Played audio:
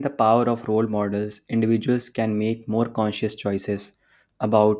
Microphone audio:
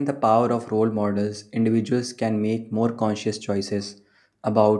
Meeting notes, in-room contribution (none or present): none